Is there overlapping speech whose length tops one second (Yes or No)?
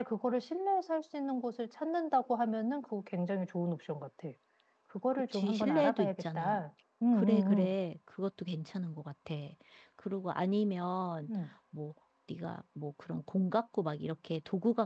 Yes